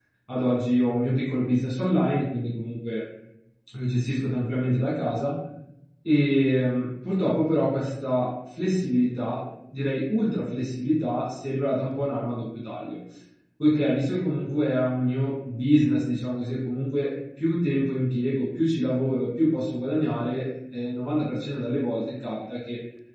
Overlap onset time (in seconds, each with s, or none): none